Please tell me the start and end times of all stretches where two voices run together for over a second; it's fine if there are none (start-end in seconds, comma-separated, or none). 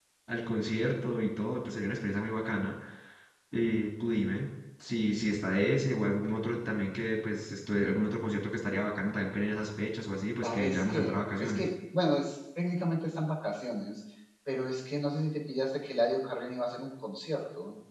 10.4-11.7